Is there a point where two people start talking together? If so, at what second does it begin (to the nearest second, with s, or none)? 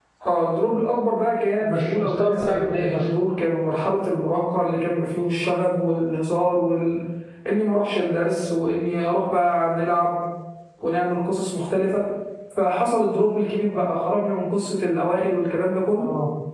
2 s